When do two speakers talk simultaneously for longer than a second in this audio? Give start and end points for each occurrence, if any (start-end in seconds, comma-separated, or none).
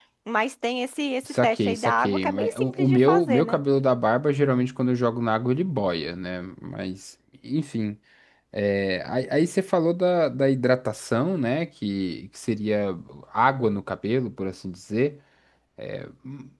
1.3-3.6